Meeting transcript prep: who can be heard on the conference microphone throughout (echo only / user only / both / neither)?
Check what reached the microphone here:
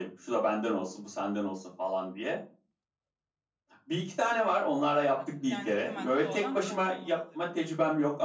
both